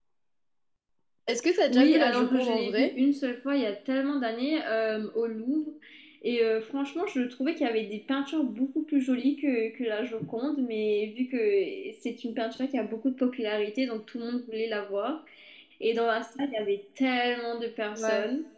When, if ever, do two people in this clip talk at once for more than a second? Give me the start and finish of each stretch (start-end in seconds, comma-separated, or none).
1.7-2.9